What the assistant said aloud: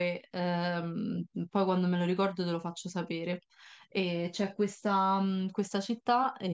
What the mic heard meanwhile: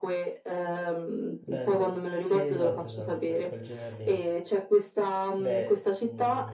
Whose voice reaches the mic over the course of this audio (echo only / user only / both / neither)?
both